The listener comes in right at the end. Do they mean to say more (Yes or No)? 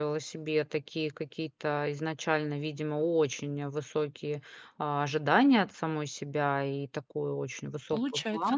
No